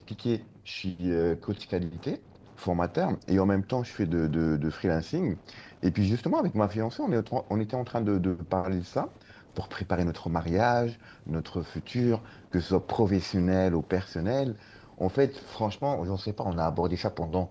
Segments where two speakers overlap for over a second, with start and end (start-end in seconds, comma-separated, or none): none